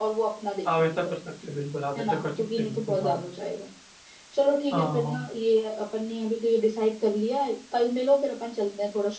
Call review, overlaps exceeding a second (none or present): present